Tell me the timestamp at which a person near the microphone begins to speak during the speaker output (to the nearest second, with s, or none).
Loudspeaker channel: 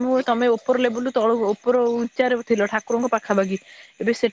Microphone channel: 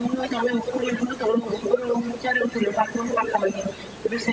none